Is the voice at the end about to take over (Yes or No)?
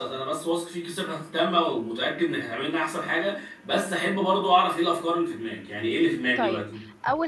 Yes